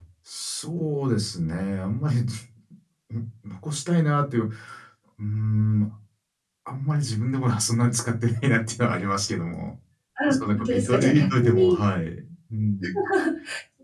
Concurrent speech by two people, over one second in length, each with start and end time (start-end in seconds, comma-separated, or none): 10.3-11.8